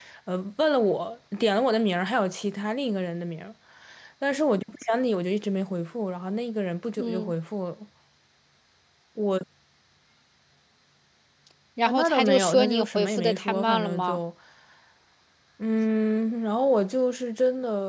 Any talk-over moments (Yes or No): Yes